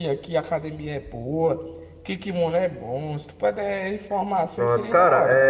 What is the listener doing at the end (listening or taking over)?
taking over